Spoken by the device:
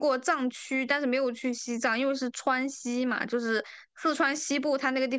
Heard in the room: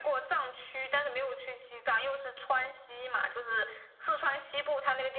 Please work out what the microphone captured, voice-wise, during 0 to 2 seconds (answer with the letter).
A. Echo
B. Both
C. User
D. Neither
A